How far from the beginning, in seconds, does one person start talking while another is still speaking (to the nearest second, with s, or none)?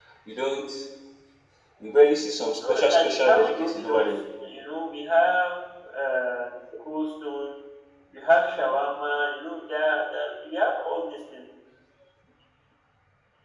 3 s